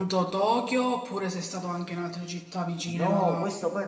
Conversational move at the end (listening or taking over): taking over